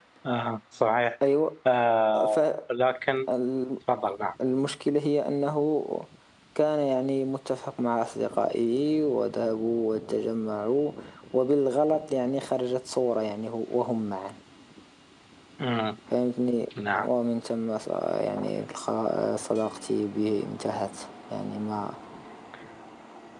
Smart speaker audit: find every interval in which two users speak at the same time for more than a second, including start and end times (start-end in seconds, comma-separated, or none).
none